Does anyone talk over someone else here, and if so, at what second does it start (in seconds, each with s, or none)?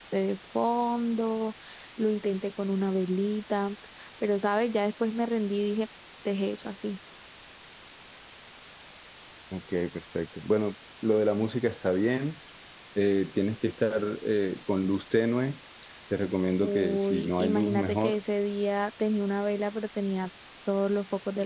16.6 s